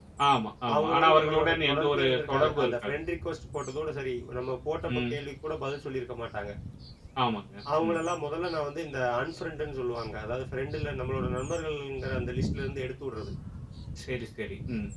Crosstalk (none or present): present